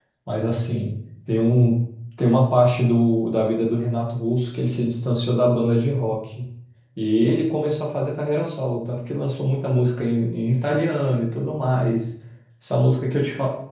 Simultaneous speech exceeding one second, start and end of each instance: none

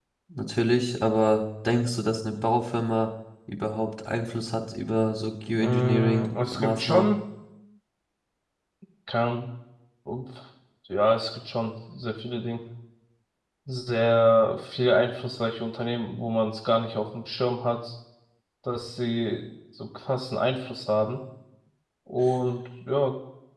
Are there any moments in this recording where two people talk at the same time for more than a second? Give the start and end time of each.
5.6-7.1

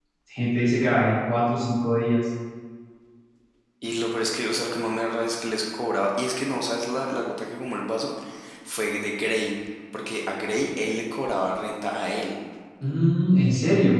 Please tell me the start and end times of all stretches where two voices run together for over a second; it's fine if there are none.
none

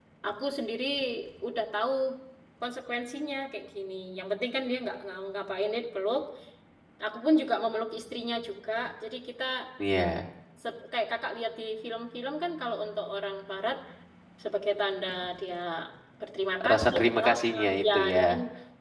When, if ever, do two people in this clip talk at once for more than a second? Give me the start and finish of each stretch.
16.7-18.2

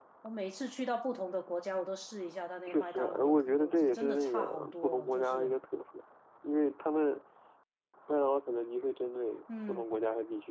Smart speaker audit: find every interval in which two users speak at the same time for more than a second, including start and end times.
2.7-5.5

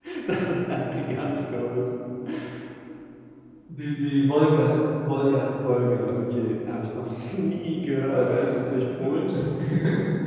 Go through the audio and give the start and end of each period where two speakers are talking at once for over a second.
none

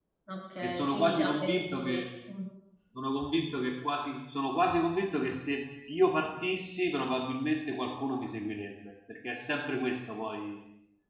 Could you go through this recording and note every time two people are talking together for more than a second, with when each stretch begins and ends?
0.6-2.0

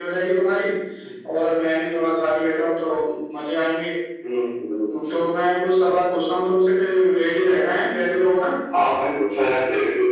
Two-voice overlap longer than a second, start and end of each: none

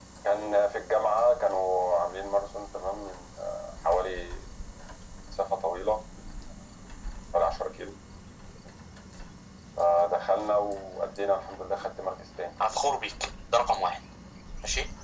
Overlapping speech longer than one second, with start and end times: none

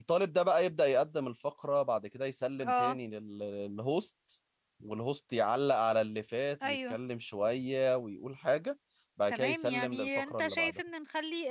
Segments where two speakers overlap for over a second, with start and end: 9.3-10.8

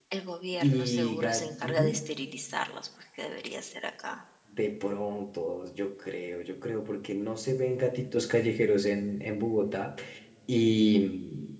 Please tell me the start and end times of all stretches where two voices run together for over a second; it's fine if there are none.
0.6-2.0

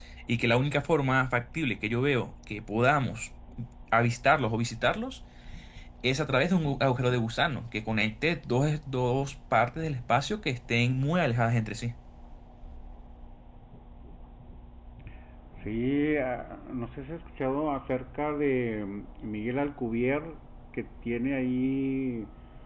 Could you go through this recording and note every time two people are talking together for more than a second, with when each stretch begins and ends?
none

